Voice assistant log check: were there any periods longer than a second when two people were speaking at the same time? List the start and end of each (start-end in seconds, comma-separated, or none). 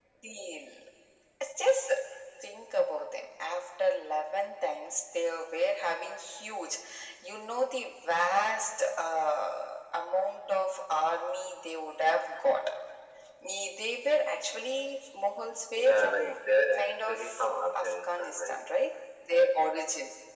15.7-18.6